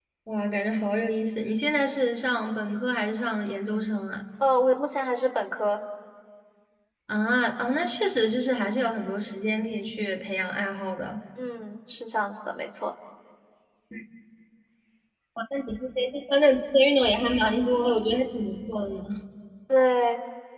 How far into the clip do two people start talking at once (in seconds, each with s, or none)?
none